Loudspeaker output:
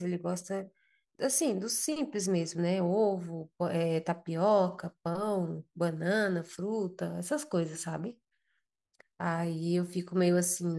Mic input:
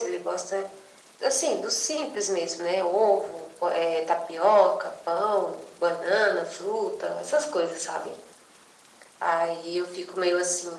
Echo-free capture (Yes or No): No